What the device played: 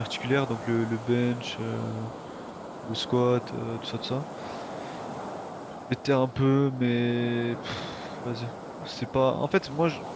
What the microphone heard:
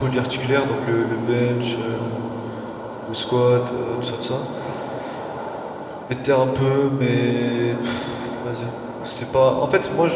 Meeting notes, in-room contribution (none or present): none